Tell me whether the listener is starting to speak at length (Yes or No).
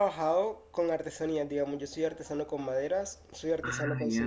No